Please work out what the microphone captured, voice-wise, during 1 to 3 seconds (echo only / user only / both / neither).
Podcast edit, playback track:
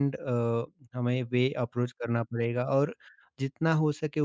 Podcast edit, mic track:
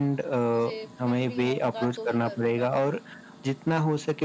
both